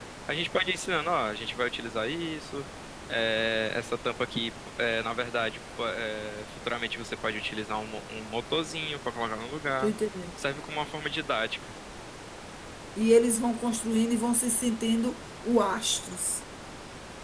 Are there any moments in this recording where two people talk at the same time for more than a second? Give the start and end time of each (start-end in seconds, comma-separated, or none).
none